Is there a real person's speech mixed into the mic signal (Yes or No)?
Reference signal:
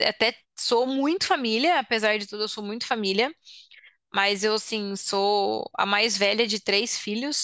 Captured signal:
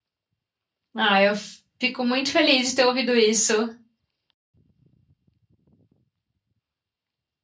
Yes